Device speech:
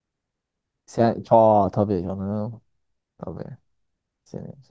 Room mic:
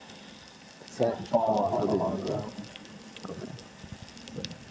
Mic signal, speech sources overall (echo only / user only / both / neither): both